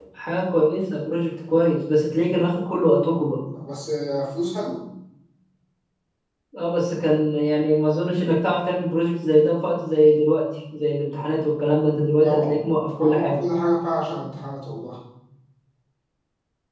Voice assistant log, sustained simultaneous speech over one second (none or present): none